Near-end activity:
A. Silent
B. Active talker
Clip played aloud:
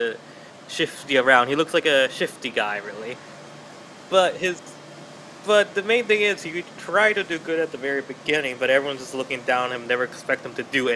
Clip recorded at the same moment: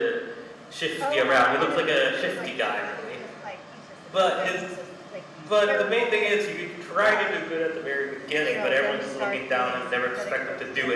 B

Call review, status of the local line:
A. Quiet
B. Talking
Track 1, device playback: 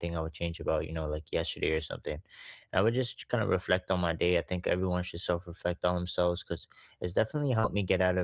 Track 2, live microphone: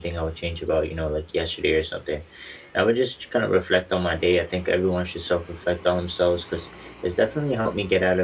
A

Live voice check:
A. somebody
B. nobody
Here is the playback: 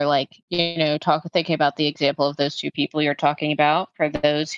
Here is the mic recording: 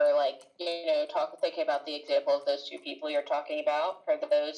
B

